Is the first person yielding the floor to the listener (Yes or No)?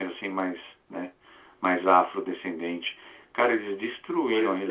No